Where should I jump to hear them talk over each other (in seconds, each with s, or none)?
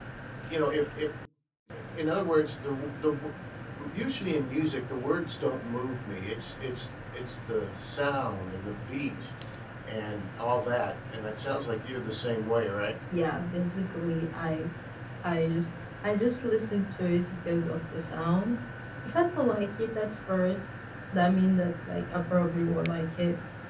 none